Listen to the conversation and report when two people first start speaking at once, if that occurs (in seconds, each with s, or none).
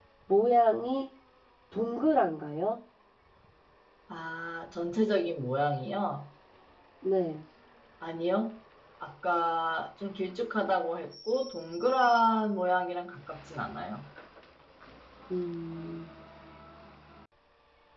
none